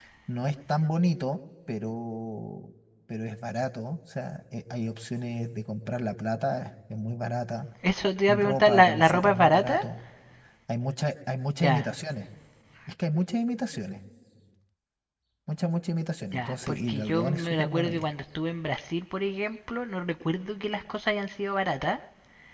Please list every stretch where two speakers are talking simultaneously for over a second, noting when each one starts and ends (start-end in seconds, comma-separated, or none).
8.3-9.8, 16.3-18.1